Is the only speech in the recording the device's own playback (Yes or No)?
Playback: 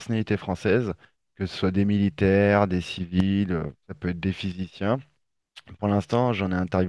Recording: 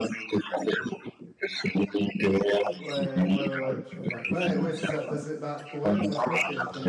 No